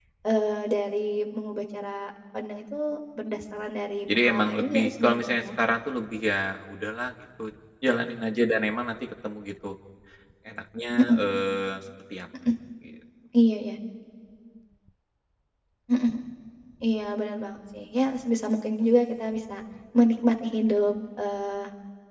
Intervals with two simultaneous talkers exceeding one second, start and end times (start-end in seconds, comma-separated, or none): 4.2-5.5